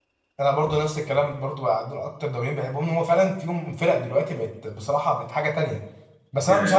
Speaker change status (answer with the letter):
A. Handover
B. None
B